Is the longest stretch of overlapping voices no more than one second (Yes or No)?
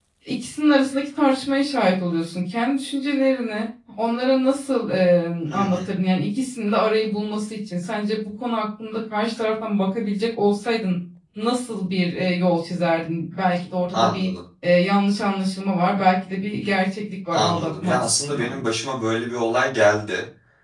No